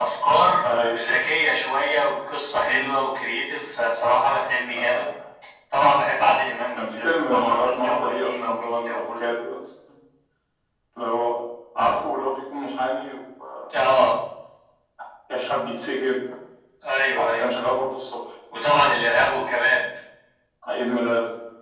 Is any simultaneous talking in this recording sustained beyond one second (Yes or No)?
Yes